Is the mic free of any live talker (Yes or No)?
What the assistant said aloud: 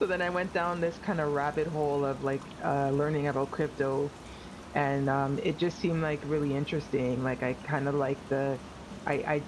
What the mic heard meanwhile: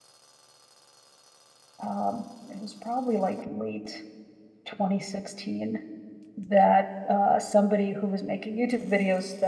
No